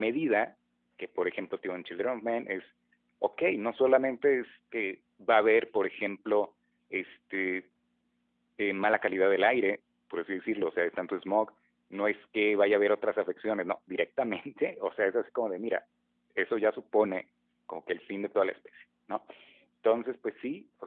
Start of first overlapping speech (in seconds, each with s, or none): none